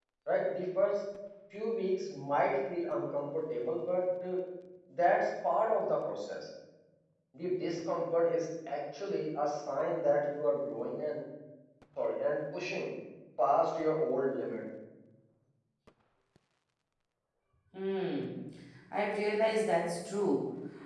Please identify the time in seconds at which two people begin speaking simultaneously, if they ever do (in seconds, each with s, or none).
none